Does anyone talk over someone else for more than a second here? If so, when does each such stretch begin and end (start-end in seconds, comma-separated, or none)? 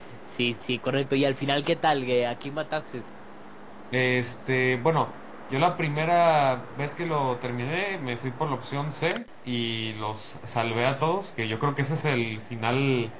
none